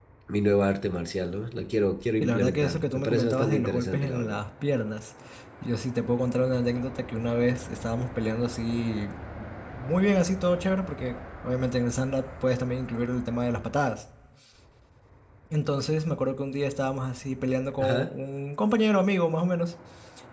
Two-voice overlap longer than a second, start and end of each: 2.2-4.4

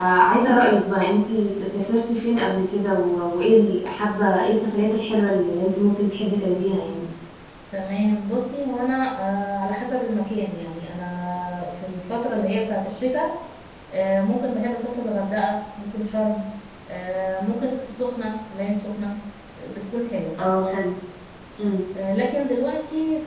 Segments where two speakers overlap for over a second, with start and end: none

